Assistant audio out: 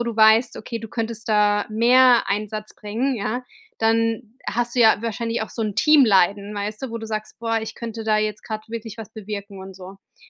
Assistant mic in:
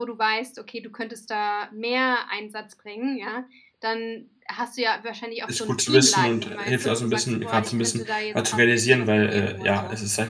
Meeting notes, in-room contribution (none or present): present